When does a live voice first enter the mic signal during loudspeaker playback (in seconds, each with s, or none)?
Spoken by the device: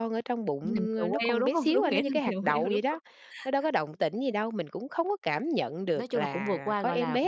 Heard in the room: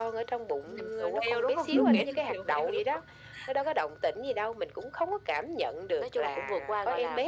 1.7 s